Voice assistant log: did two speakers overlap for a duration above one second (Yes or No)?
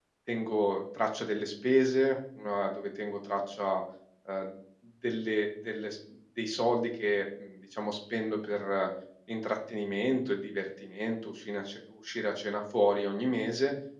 No